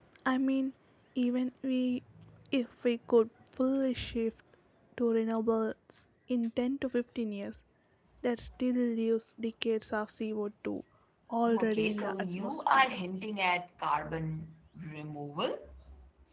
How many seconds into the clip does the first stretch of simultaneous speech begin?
12 s

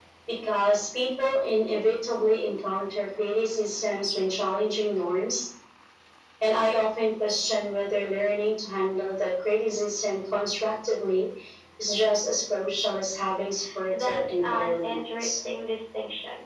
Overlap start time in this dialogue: 14 s

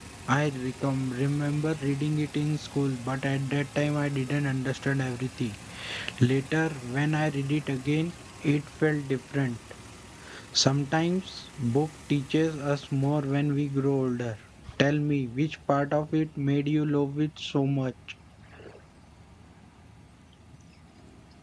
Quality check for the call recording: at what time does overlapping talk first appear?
none

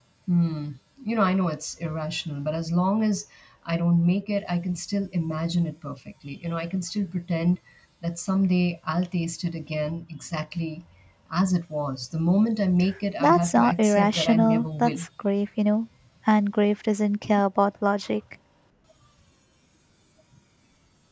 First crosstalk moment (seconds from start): 13 s

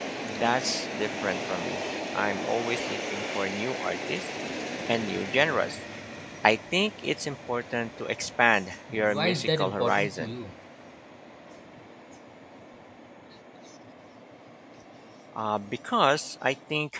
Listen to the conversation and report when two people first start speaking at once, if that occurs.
9 s

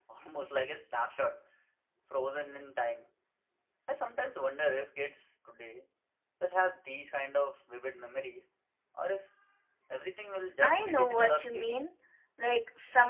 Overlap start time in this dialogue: 11 s

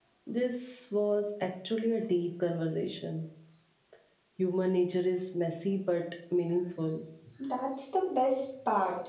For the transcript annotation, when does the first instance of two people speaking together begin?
none

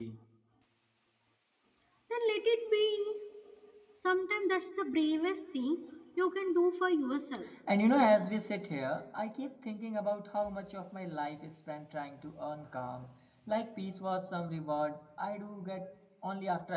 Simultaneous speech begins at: none

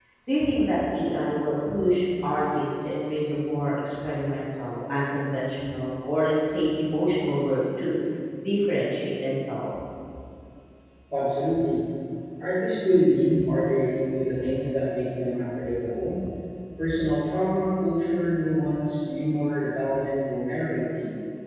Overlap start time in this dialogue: none

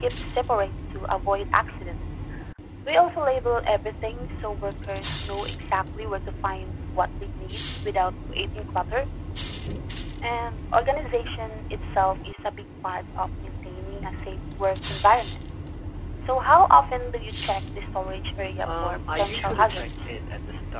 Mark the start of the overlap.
19 s

